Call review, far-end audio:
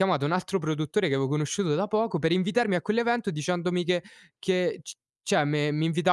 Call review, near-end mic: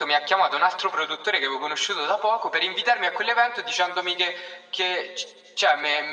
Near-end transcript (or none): none